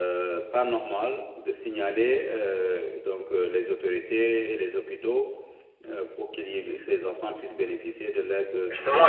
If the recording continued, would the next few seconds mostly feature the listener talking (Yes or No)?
Yes